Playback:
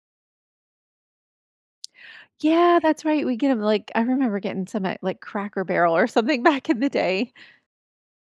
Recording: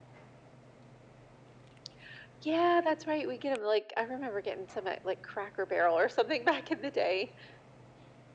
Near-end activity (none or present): none